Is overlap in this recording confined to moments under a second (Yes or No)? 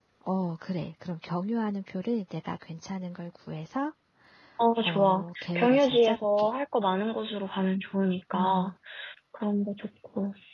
No